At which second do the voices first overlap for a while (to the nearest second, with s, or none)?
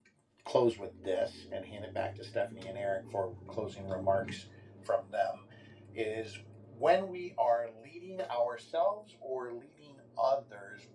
none